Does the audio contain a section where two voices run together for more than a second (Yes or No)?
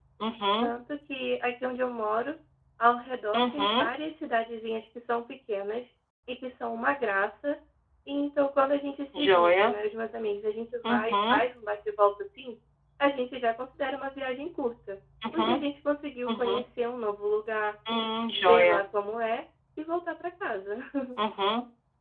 No